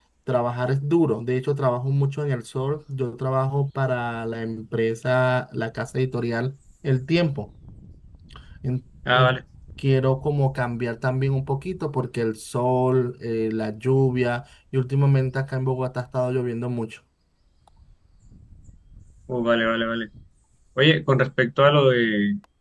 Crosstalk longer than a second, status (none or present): none